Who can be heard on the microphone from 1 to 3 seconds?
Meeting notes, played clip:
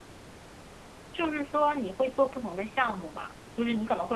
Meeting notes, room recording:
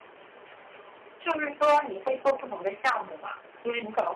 echo only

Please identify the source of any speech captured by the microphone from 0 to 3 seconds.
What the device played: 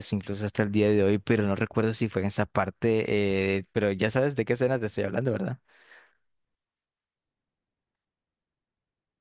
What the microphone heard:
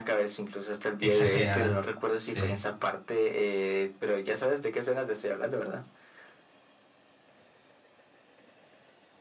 both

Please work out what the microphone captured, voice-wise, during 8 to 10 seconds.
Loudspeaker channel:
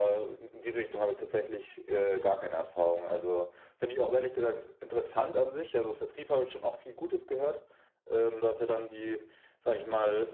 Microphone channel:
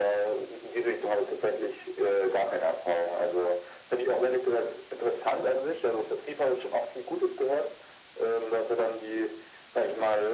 echo only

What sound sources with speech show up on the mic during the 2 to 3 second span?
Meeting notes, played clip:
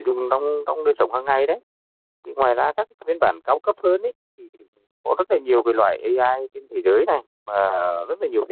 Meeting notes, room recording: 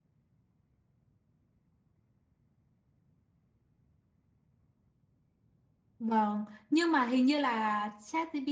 neither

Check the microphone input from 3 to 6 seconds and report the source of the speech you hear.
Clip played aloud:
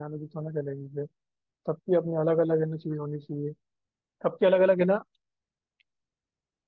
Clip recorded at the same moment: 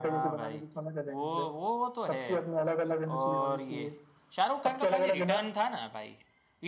both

